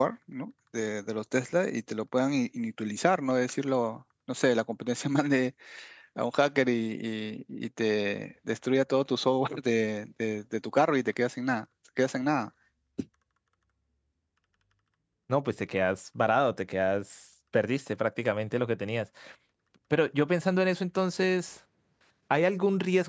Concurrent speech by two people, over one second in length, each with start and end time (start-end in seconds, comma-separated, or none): none